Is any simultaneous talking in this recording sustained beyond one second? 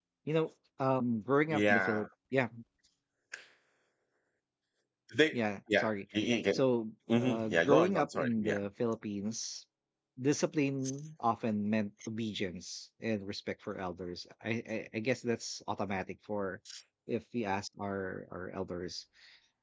Yes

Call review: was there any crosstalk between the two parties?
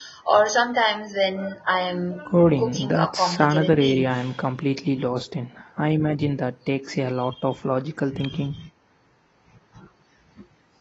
Yes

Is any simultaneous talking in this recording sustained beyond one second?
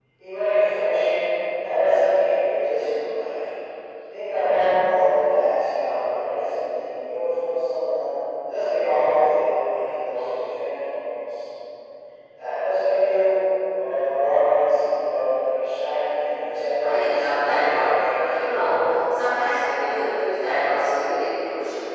Yes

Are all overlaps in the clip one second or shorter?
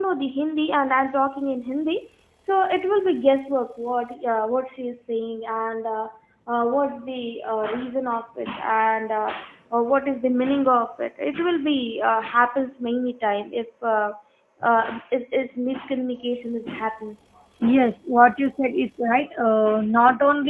Yes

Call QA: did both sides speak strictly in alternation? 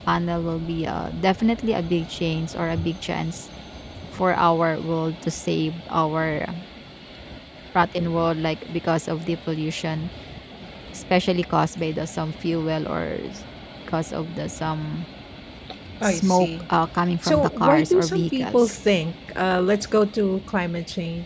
No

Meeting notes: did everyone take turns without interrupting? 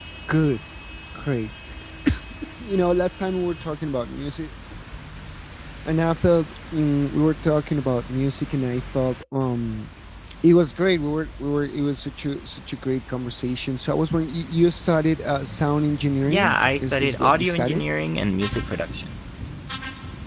No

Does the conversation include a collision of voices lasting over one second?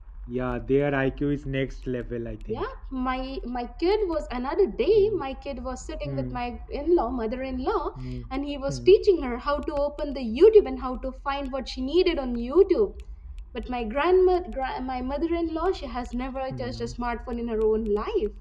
No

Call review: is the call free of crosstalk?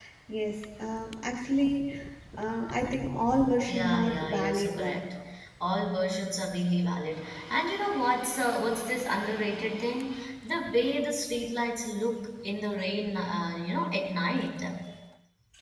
No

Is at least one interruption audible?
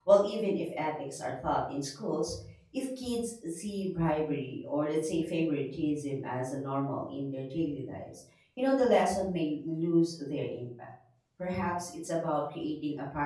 No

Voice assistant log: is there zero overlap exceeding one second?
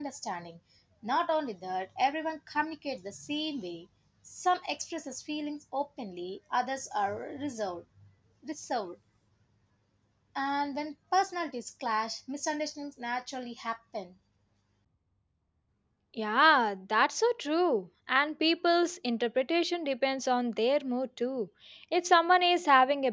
Yes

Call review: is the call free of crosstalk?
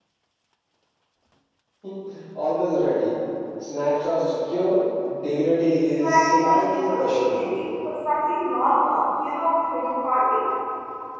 No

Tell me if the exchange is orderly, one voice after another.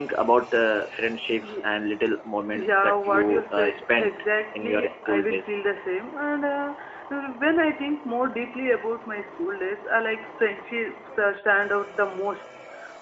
No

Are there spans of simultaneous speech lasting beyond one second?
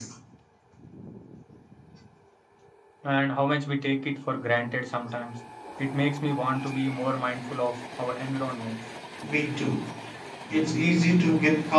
No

